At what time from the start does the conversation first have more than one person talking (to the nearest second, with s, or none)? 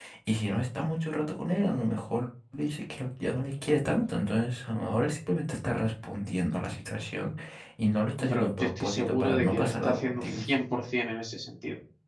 8 s